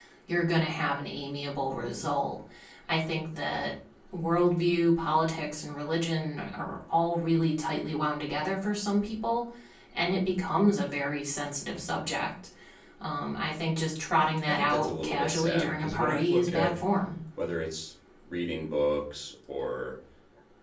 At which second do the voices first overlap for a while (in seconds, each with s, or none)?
14.4 s